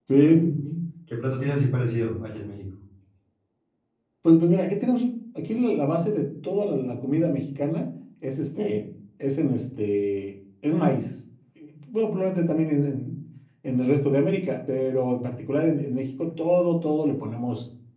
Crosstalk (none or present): none